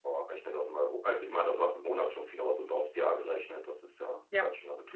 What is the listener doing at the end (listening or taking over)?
taking over